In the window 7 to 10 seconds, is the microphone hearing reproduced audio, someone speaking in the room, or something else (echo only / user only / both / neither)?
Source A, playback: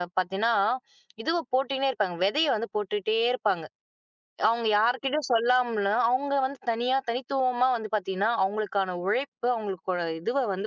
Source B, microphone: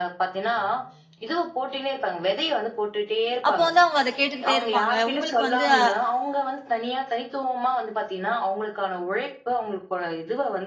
echo only